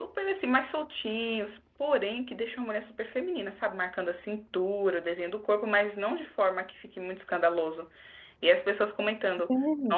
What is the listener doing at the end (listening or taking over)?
listening